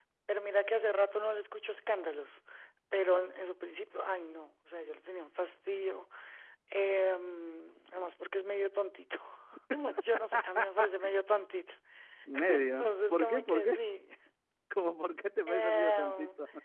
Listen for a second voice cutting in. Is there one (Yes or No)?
Yes